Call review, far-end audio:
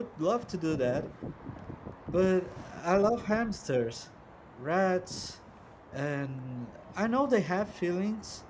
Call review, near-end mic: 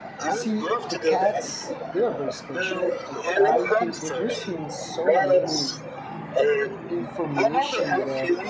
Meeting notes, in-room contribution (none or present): present